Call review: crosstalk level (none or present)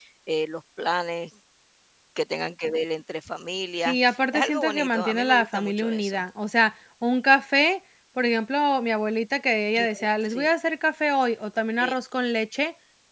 present